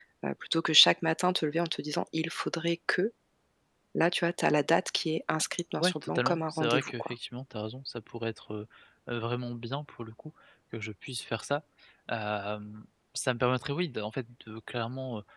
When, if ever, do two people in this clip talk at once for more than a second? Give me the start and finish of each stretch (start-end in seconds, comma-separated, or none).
5.8-7.1